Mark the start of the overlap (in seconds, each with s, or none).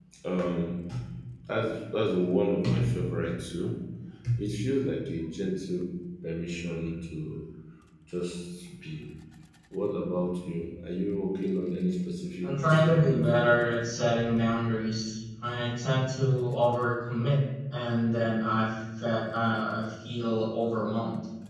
12.4 s